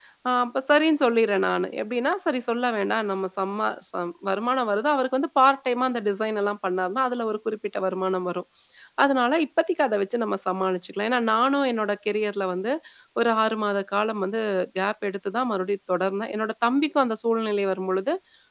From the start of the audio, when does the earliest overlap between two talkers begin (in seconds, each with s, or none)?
none